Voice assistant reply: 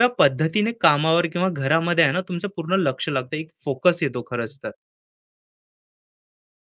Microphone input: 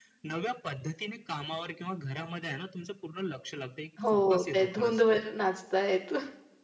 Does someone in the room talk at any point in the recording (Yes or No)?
Yes